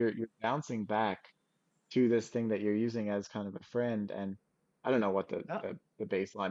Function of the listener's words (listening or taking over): listening